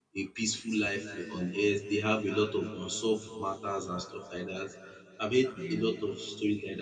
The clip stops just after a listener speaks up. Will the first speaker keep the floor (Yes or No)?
Yes